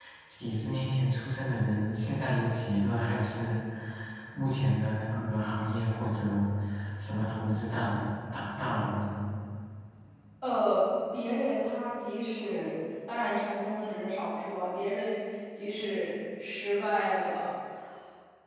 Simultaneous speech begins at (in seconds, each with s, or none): none